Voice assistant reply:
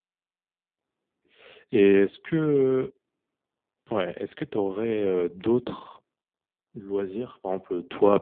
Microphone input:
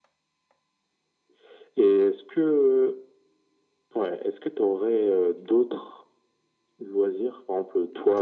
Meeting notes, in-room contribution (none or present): none